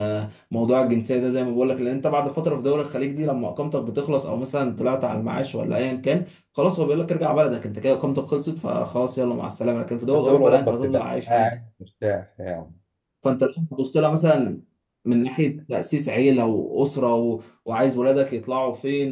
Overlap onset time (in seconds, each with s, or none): 10.1 s